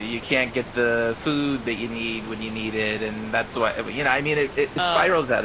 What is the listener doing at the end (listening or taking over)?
listening